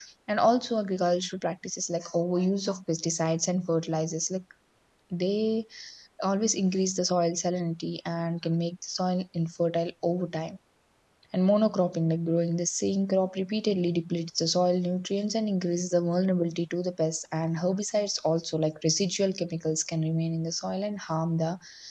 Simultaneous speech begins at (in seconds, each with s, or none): none